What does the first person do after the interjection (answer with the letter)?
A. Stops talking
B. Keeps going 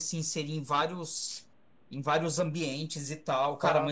B